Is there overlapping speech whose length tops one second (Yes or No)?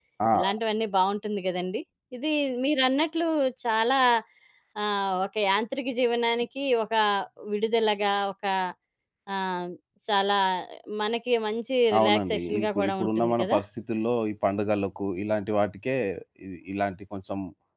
Yes